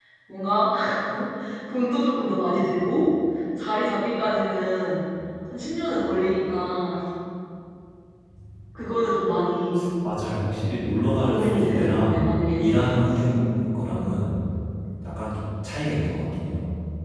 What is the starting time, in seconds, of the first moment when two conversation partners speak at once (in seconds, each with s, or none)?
11.2 s